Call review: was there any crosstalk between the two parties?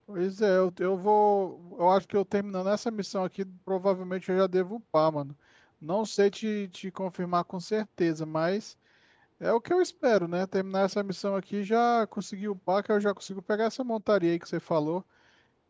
No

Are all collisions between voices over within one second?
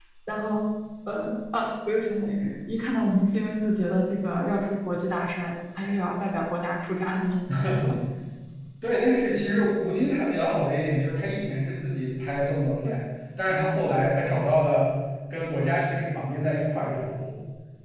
Yes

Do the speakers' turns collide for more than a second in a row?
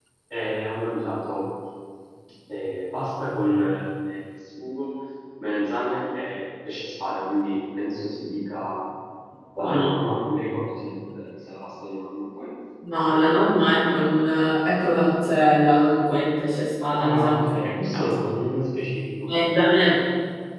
No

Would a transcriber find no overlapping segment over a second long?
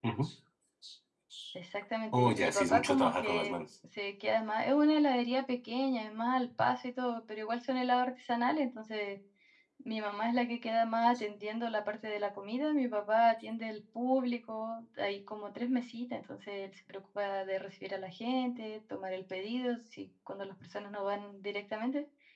No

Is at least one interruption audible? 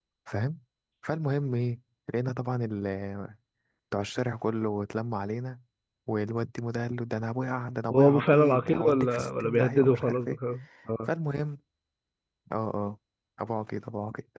Yes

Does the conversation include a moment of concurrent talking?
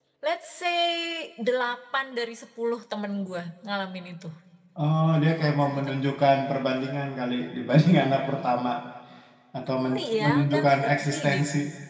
Yes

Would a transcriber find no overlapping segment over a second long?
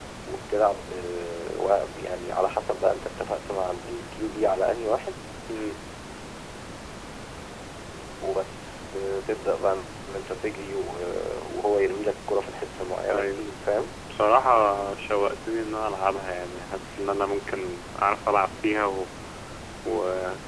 Yes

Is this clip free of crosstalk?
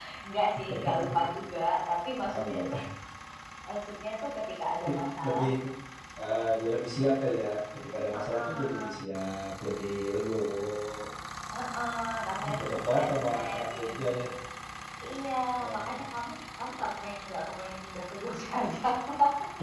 No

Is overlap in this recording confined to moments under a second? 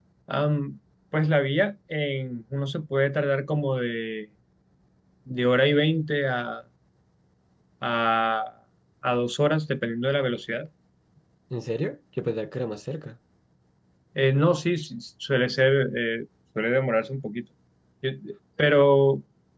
Yes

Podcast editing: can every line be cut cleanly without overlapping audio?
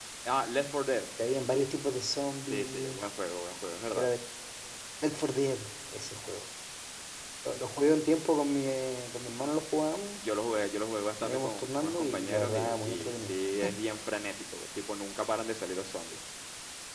No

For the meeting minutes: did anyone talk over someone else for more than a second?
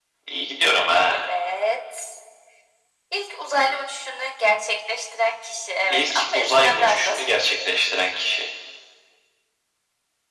Yes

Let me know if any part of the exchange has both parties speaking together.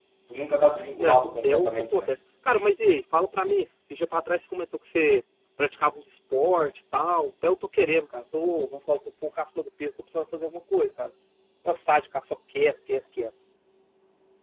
Yes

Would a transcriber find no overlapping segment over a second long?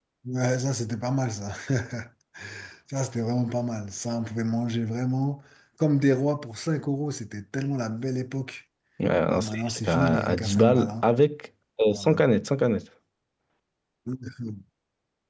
No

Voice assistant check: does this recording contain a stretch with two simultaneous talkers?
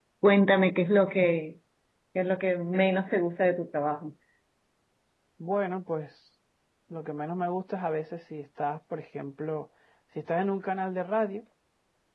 No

